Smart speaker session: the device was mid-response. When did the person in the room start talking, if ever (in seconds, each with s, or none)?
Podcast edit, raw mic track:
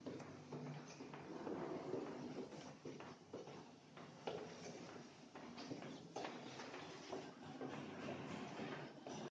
none